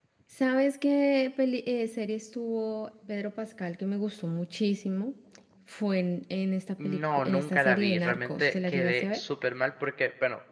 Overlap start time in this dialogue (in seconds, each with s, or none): 6.8 s